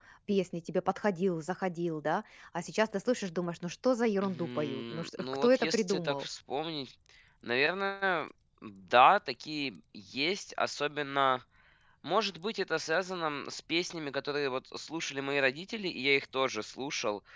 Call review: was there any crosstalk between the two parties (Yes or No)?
Yes